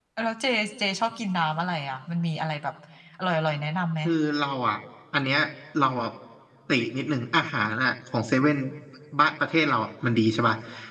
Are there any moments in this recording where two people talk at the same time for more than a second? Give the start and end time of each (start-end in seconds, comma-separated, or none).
none